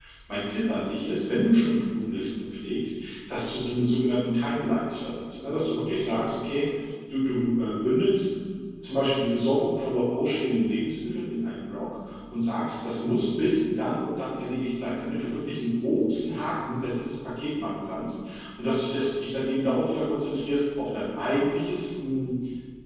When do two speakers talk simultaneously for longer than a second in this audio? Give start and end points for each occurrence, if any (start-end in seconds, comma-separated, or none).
none